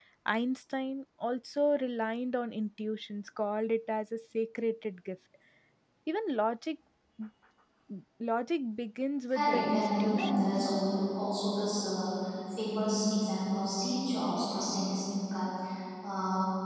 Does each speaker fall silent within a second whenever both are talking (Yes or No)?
No